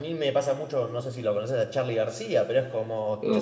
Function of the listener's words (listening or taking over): listening